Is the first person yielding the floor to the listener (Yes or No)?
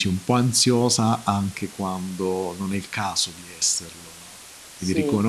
No